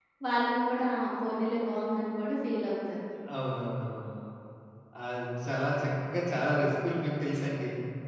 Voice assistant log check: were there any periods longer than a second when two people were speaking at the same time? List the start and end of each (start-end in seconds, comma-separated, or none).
none